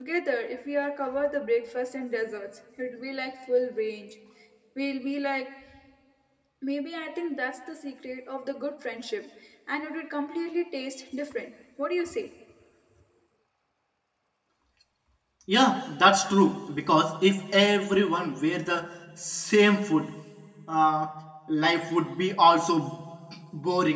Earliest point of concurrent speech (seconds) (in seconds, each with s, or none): none